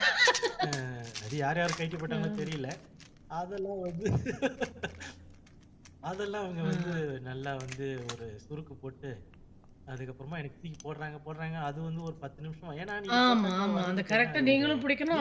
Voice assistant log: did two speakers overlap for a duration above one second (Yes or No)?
Yes